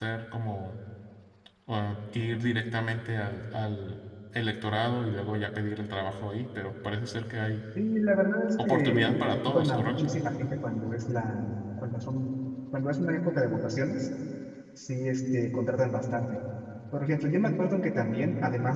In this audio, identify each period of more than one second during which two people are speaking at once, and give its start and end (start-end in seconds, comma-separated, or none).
8.7-10.1